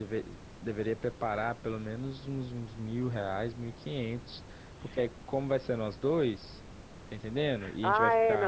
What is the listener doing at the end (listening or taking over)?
taking over